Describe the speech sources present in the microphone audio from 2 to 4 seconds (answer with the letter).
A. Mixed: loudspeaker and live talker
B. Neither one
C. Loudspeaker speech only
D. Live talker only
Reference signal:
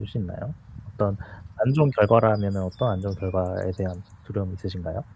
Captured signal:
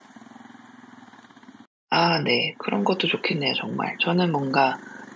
D